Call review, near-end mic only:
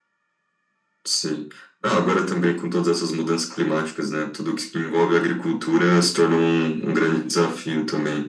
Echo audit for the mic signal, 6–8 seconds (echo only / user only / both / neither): echo only